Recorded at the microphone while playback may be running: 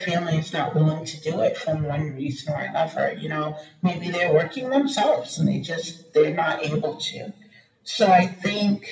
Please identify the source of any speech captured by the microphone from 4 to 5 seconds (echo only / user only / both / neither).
echo only